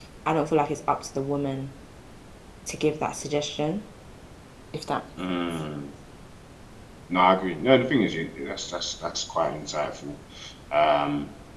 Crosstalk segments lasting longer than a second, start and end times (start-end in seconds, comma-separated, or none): none